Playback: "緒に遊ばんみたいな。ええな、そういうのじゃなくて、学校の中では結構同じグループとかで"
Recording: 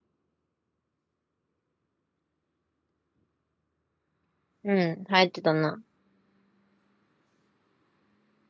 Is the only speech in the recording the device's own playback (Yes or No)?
No